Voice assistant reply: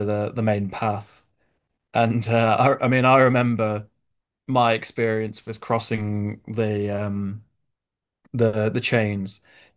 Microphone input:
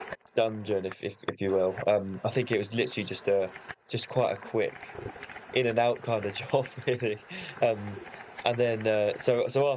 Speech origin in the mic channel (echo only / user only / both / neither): user only